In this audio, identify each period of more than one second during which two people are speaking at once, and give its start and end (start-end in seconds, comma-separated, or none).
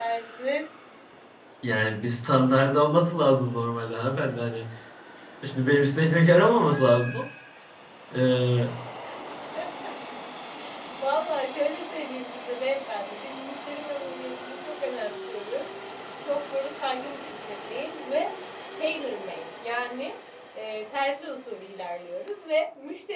none